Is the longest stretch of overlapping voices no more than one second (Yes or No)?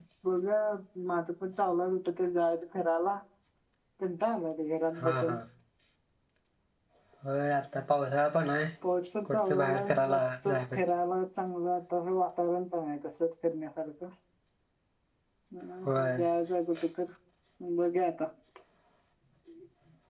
No